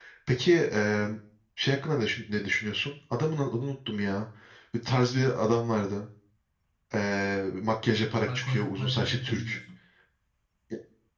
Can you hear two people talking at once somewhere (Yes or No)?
Yes